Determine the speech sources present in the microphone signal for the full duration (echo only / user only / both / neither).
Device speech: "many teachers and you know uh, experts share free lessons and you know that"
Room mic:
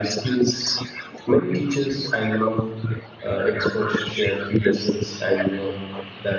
echo only